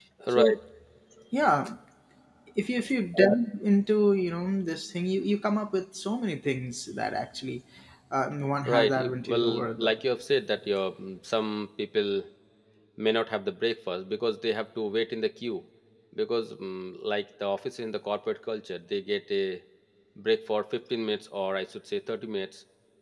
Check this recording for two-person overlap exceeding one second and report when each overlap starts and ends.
8.7-9.9

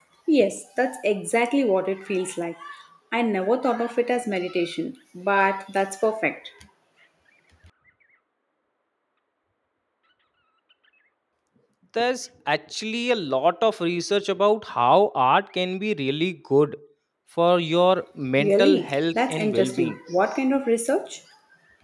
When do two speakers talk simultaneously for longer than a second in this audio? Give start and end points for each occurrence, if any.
18.4-20.0

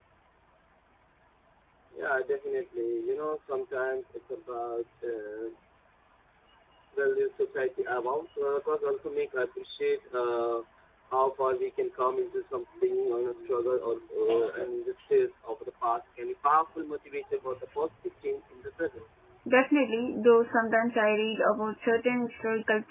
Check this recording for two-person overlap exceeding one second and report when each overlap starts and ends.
none

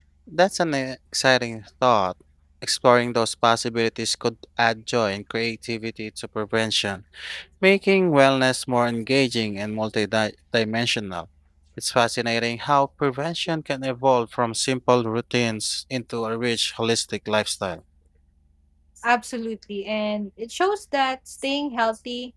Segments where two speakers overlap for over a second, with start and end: none

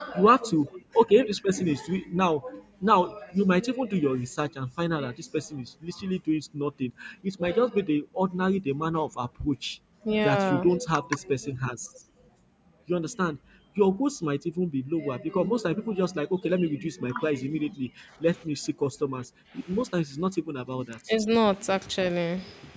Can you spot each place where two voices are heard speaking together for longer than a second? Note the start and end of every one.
none

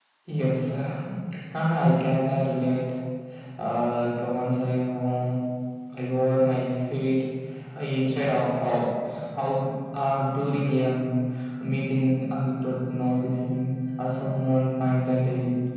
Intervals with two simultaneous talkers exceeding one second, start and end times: none

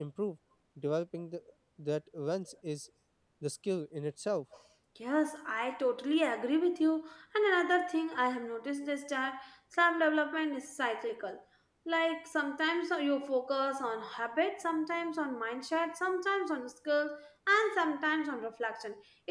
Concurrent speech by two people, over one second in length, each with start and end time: none

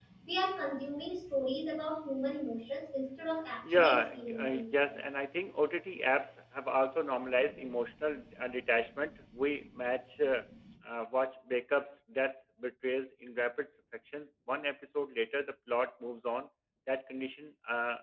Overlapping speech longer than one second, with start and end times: 3.6-5.0

